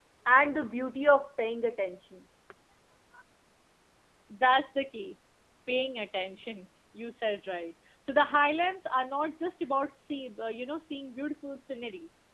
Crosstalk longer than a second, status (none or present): none